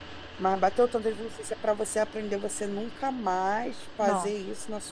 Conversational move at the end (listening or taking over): listening